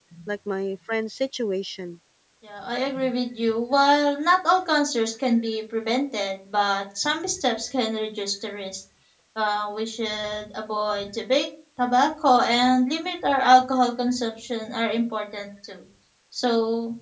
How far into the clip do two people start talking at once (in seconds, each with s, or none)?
none